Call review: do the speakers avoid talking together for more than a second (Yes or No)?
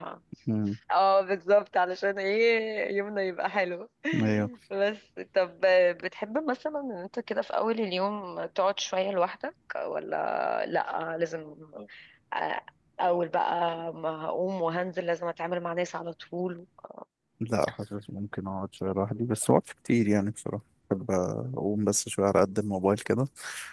Yes